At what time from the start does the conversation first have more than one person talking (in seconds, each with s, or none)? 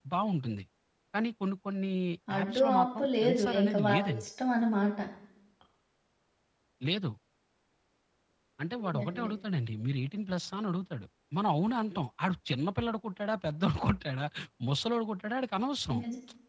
2.4 s